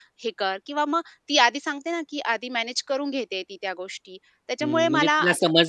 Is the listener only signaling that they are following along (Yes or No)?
No